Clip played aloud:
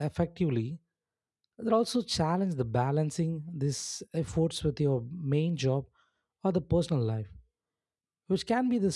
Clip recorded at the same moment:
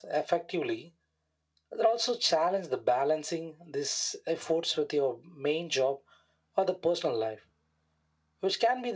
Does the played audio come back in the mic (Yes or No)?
Yes